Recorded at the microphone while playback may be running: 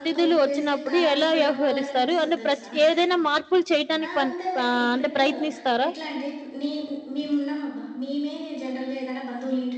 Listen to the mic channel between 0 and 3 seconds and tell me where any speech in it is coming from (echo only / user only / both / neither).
both